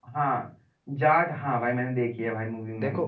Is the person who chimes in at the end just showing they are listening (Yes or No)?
No